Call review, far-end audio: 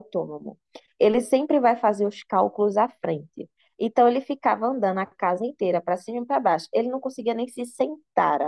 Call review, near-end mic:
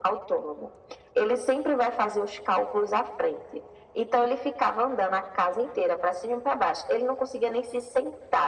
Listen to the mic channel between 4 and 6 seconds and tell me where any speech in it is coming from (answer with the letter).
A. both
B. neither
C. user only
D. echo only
D